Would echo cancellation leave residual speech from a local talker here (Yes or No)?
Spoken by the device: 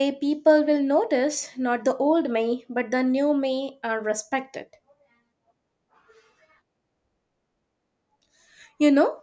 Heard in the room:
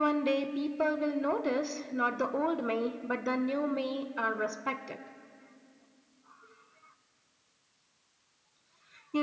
No